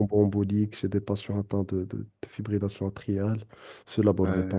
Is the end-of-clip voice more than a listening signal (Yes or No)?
Yes